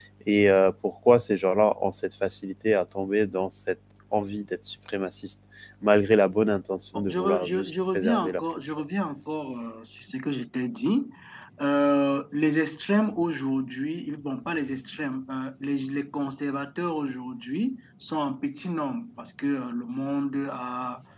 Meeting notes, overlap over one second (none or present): present